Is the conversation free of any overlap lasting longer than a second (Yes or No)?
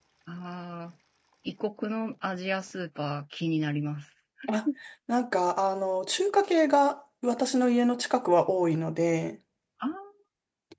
Yes